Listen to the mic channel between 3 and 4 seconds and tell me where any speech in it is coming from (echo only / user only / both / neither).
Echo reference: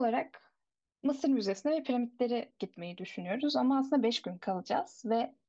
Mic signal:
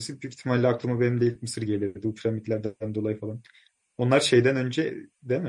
user only